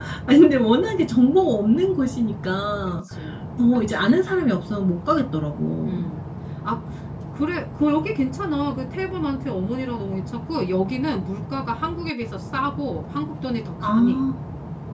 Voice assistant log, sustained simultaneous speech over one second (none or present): none